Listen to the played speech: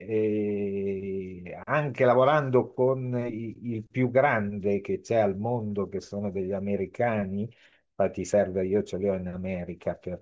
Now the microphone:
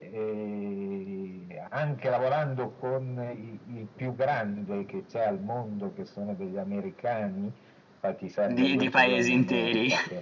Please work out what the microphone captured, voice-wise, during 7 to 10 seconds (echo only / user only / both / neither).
both